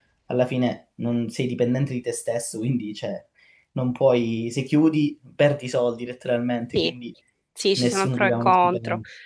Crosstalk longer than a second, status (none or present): present